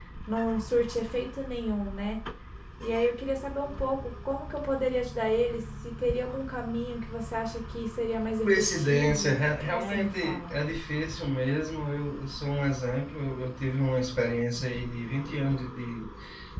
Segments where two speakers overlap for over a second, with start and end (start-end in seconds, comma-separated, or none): 8.4-10.5